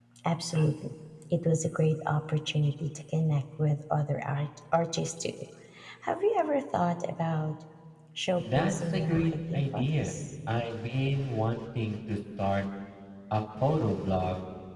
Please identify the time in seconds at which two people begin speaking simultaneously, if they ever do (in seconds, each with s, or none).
8.4 s